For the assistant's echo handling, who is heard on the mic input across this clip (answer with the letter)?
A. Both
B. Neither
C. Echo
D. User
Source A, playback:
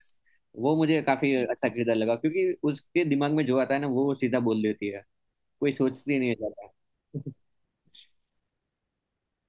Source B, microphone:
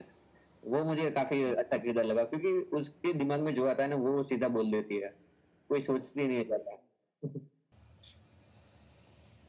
C